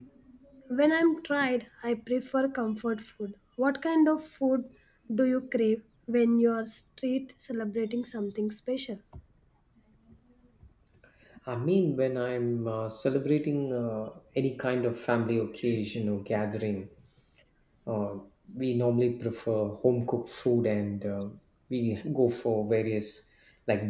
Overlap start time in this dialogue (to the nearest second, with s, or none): none